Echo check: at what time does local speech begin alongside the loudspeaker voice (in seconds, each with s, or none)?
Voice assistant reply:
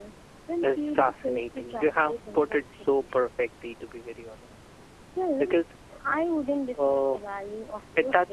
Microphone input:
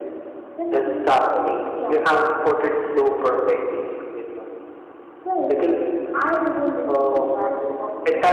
none